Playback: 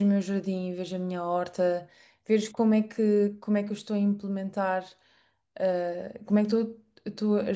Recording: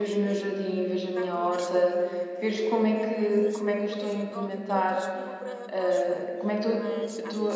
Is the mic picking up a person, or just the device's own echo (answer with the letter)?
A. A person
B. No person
A